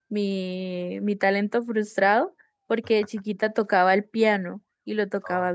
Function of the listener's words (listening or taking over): listening